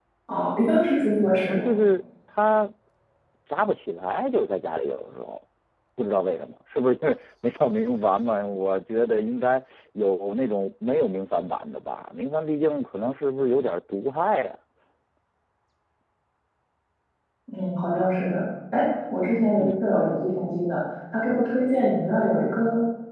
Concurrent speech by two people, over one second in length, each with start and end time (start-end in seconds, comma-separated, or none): none